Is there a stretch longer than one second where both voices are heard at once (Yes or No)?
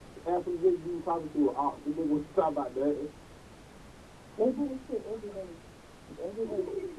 No